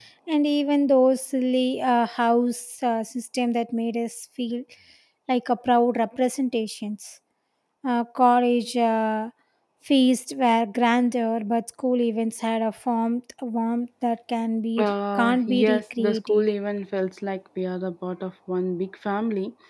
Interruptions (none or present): present